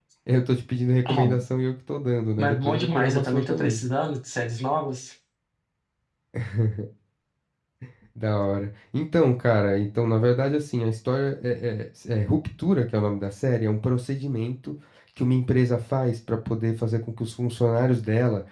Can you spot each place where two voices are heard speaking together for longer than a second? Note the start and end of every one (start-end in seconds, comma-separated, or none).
2.4-3.8